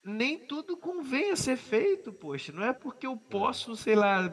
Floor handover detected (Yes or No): No